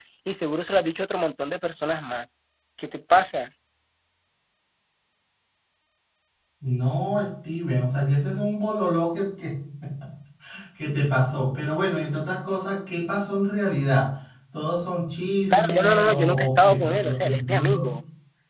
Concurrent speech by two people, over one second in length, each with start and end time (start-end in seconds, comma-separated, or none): 15.5-17.9